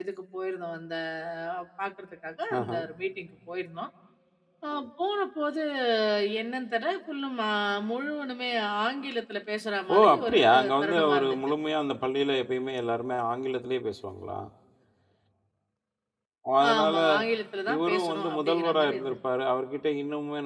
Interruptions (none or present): present